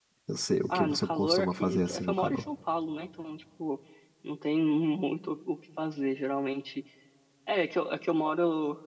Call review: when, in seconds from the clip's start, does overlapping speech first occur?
0.7 s

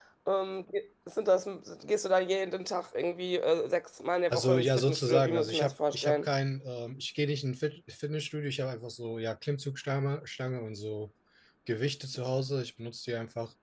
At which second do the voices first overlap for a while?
4.3 s

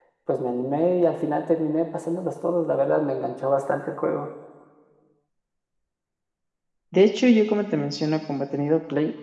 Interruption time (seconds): none

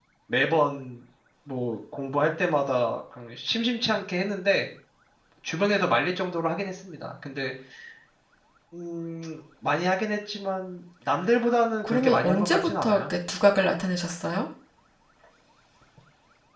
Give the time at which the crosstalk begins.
11.8 s

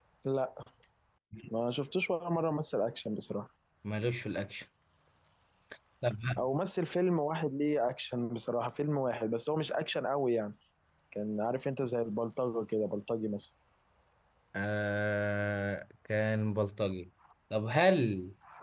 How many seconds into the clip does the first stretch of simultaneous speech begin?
none

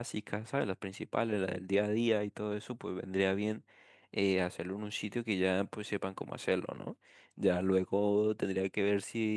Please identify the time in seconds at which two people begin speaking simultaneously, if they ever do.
none

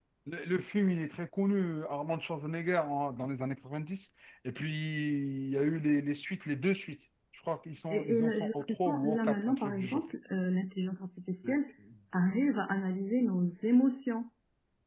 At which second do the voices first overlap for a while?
7.9 s

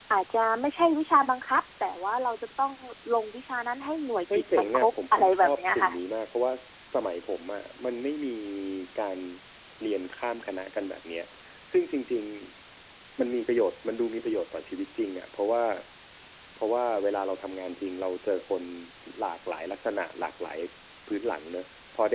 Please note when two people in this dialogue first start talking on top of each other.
4.3 s

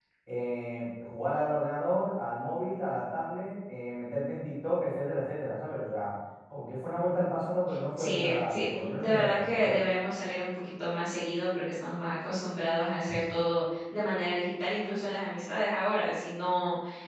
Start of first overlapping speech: 8.0 s

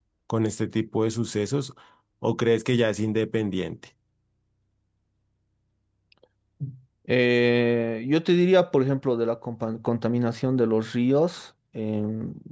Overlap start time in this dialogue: none

